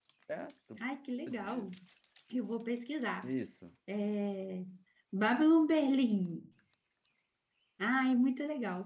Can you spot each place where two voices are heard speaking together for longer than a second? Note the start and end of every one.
none

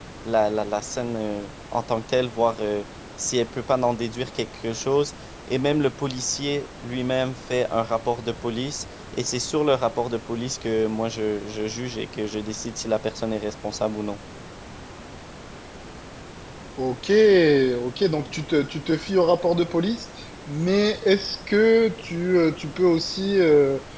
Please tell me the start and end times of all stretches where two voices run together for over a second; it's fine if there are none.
none

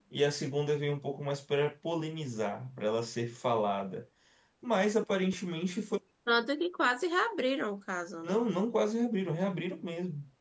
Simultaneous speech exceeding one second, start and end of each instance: none

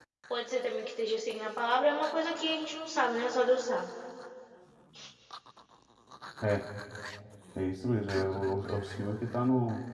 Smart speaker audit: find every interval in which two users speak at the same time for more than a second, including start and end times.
none

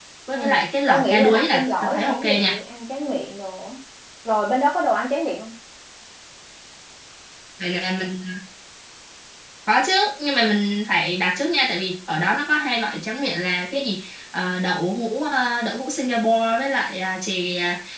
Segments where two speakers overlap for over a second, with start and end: 0.9-2.5

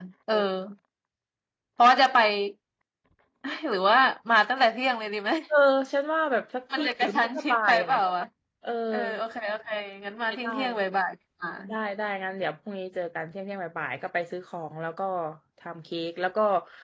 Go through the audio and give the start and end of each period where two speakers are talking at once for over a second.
6.7-8.0

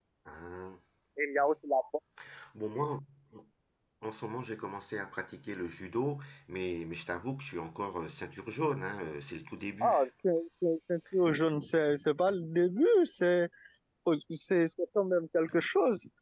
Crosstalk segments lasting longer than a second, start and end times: none

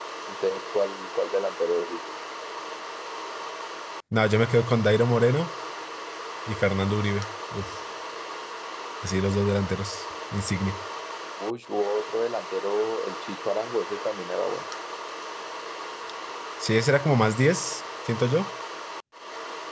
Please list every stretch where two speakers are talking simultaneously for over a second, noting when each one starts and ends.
none

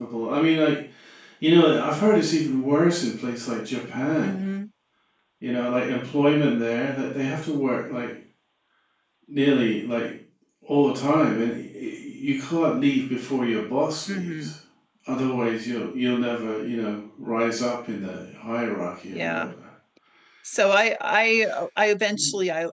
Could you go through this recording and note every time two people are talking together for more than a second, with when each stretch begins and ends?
none

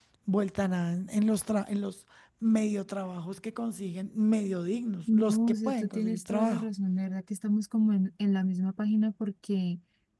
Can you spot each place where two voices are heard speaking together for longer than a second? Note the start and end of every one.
5.1-6.7

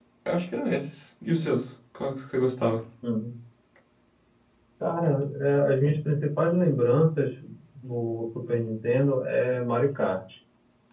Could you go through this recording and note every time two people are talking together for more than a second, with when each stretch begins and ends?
none

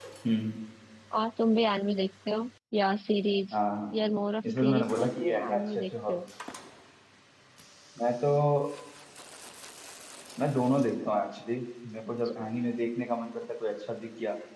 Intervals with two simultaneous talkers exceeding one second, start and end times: 4.5-6.2

